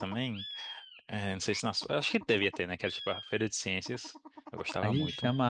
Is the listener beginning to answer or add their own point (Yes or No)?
Yes